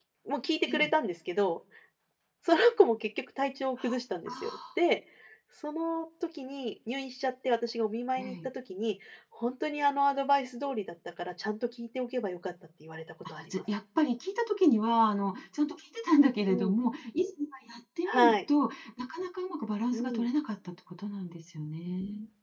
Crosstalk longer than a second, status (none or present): none